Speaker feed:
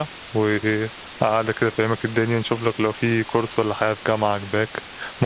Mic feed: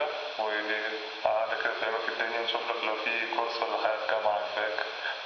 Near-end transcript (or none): none